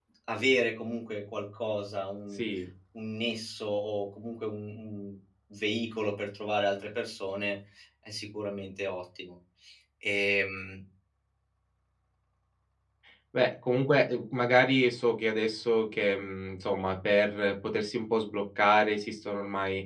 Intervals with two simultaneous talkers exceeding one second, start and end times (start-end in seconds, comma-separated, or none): none